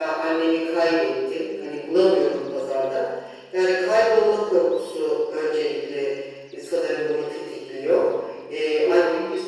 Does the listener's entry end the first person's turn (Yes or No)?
No